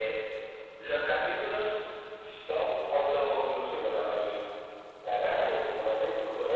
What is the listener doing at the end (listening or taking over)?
taking over